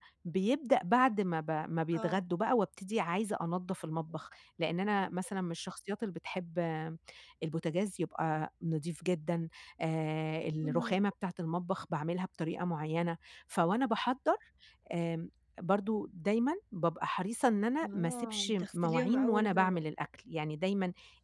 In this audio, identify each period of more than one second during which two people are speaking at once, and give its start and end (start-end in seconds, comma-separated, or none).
17.8-19.8